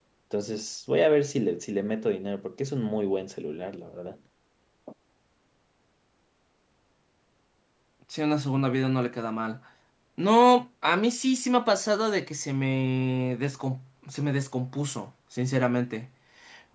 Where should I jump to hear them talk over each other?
none

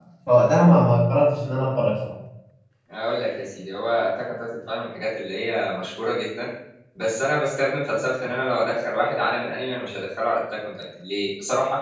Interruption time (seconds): none

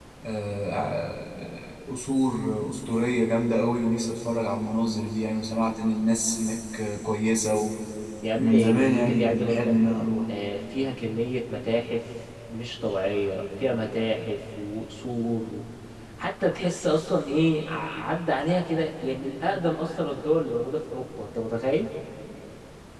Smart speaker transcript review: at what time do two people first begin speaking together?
8 s

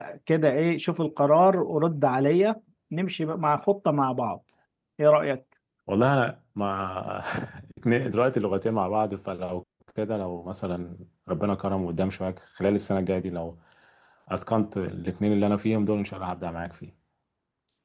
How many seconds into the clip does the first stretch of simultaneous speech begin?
none

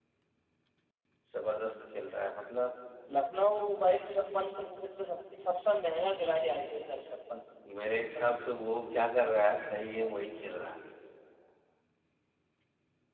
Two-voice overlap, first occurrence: none

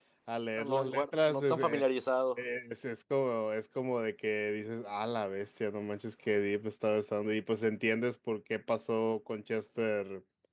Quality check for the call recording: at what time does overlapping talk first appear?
1 s

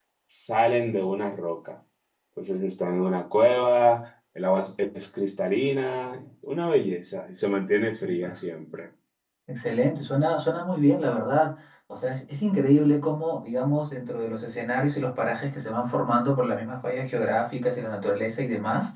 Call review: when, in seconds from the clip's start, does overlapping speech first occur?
none

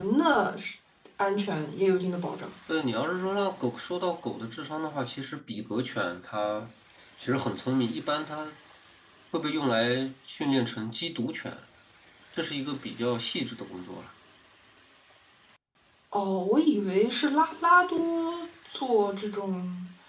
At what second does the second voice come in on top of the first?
none

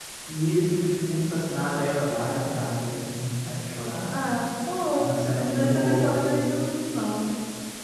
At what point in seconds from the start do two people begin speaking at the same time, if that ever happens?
5 s

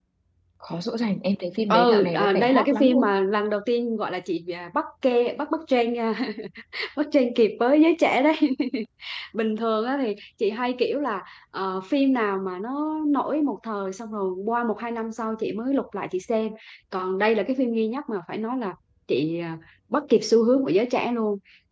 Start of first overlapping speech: 2 s

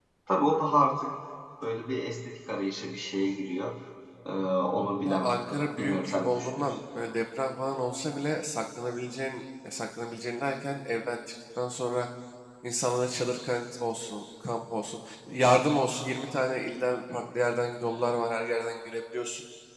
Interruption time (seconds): 5 s

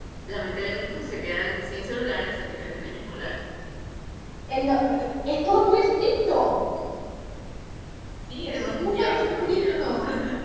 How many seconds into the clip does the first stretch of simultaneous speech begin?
8 s

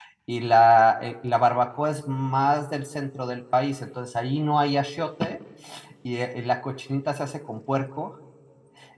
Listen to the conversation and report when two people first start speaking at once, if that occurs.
none

